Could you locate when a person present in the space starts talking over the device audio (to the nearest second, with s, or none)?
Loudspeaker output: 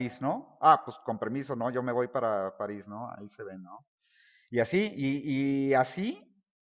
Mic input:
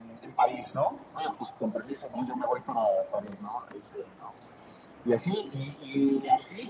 none